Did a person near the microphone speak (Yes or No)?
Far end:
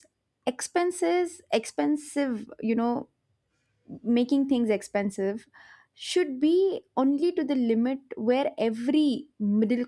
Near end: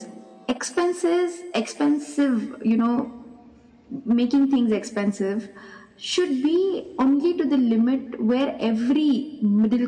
No